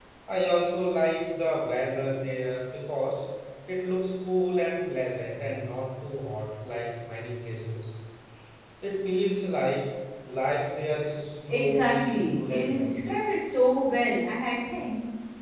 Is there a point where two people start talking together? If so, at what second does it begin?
11.5 s

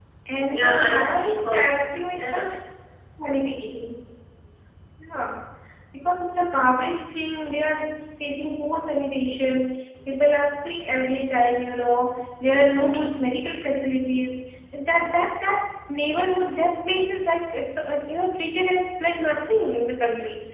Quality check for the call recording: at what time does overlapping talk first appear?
0.5 s

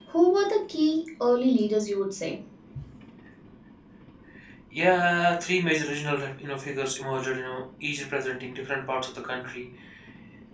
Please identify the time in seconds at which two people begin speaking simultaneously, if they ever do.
none

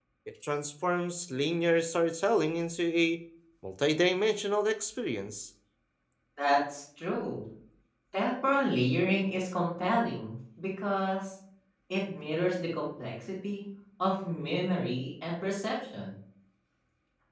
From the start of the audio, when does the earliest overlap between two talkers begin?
none

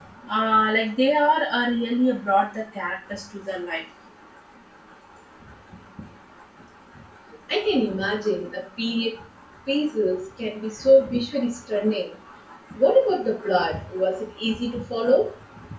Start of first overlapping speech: none

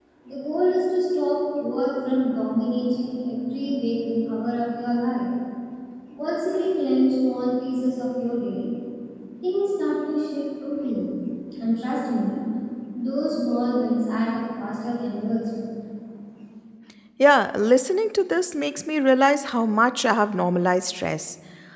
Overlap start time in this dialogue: none

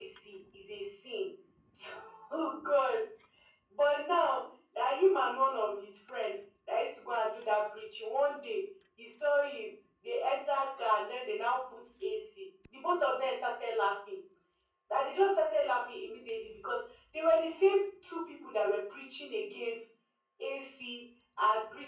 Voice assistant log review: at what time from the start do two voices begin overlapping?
none

